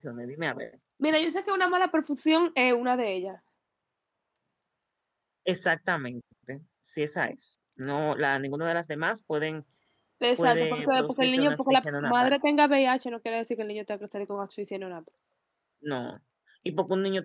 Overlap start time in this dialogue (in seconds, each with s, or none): 10.4 s